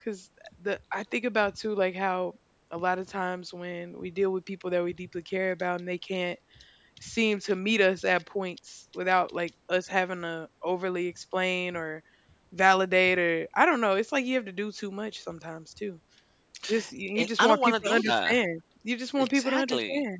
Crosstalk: present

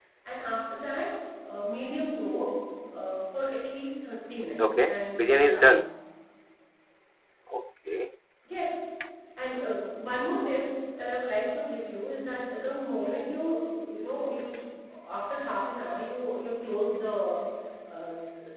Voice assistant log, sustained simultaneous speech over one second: present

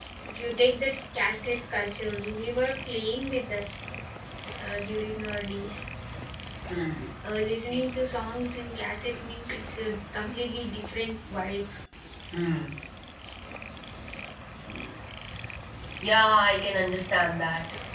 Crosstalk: none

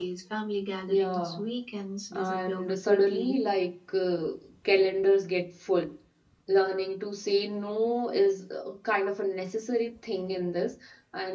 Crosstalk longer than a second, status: present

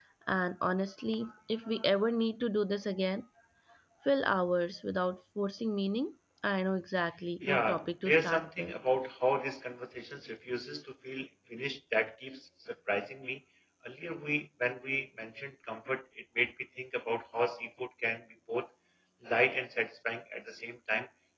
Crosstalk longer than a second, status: present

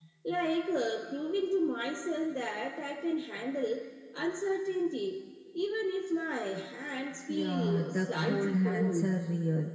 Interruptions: present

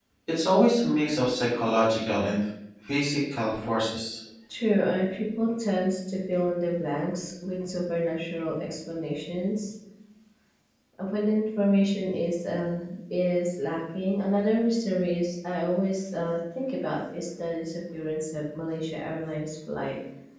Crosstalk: none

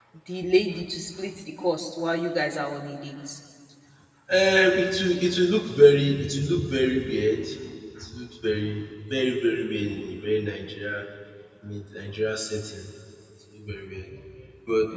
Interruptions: none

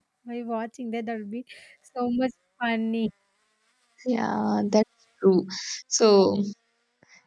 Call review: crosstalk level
none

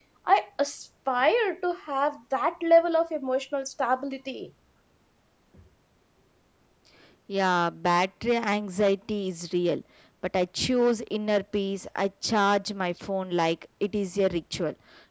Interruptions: none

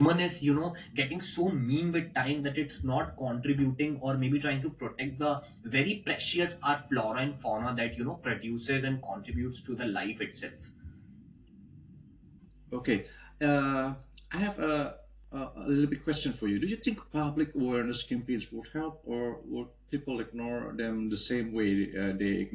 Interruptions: none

